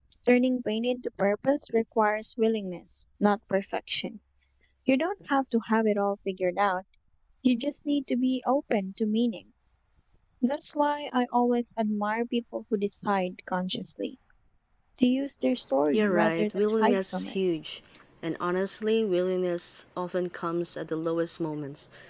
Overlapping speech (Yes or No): Yes